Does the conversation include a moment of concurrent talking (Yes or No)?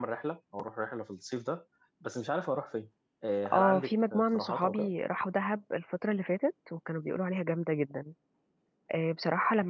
Yes